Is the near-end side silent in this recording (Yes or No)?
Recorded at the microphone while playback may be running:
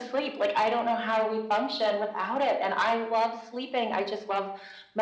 Yes